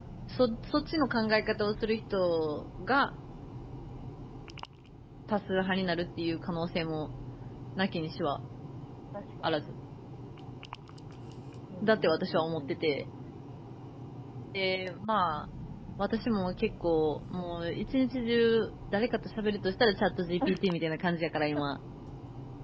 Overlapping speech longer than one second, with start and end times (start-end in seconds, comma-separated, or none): 11.8-13.0